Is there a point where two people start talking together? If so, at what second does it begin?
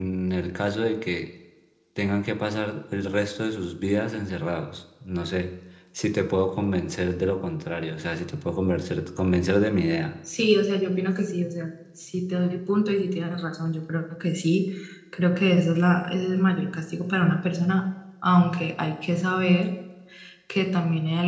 none

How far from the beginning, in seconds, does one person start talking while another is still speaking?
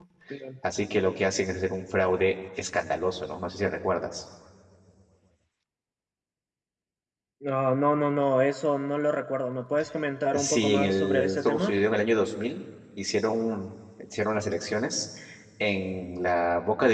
10.3 s

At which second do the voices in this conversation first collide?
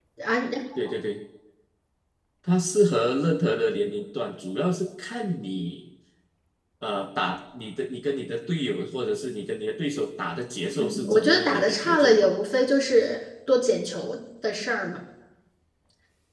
10.8 s

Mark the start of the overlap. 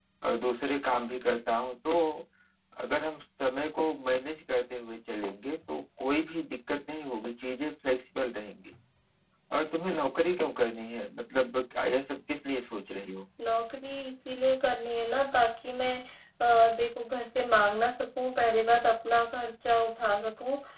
none

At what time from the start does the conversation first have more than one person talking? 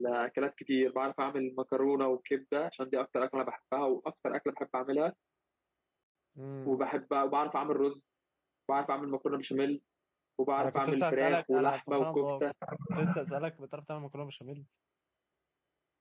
10.6 s

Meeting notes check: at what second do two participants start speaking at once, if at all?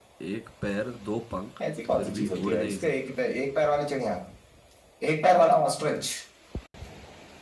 2.0 s

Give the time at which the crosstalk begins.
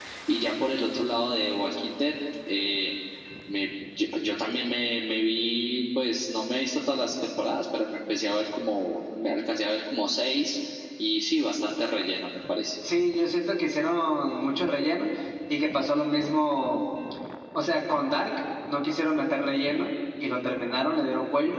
none

